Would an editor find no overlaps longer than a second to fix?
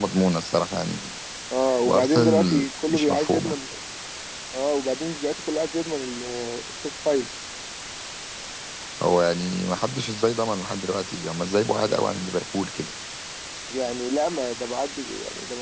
No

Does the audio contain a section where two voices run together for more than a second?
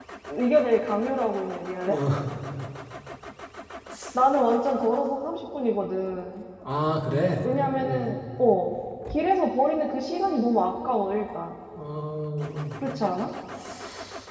No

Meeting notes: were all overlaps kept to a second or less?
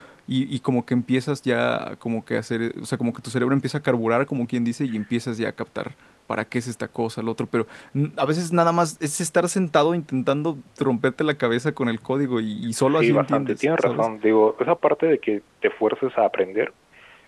No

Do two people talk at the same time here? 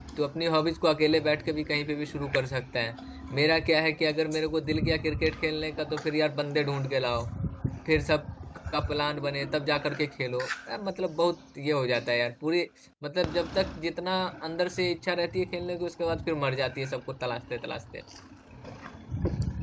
No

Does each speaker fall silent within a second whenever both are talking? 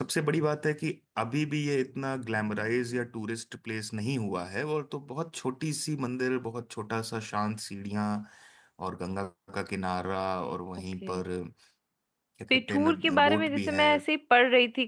No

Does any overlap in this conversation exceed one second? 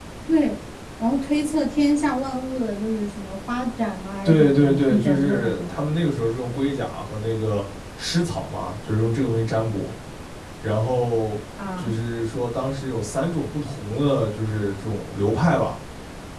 Yes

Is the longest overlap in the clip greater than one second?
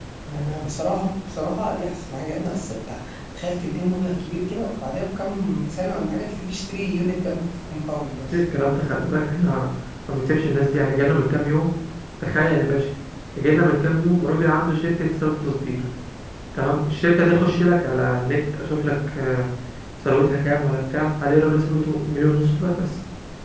No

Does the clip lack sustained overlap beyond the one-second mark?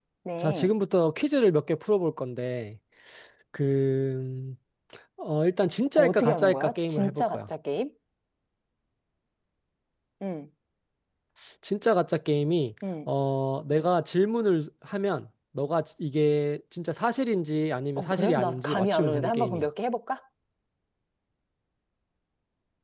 No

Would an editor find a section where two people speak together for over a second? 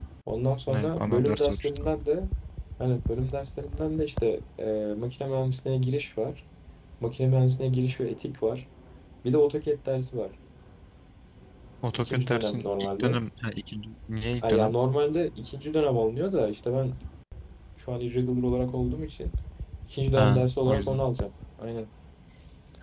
Yes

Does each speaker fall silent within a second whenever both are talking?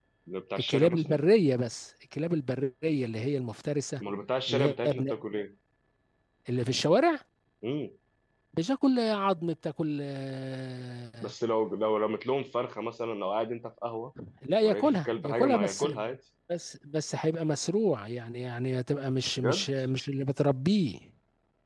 No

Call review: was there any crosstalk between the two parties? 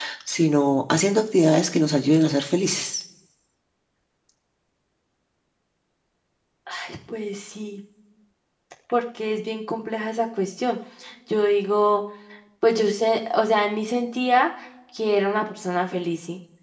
No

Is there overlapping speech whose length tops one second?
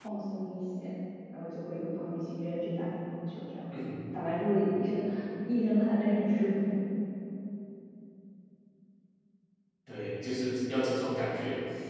No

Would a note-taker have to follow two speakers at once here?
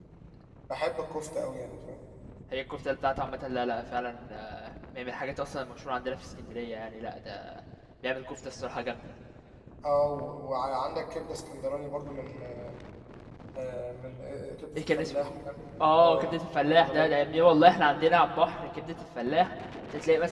Yes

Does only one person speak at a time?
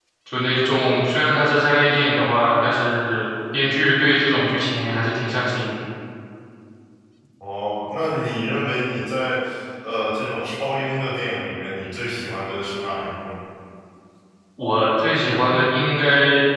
Yes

